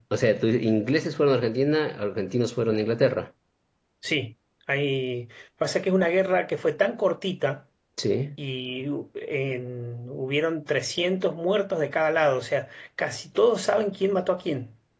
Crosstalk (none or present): none